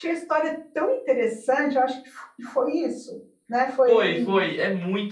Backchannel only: No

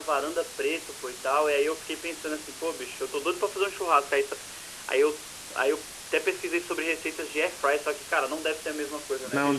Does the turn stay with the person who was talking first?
No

